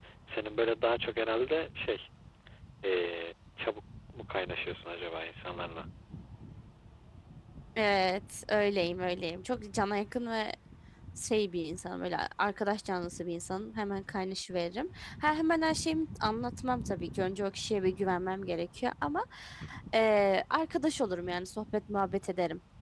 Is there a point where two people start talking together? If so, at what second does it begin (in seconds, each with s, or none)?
none